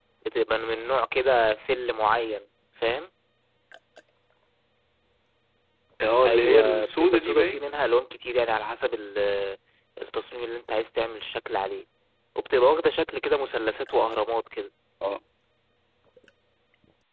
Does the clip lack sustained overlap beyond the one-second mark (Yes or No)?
No